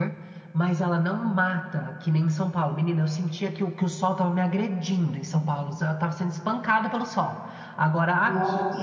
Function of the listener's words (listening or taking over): listening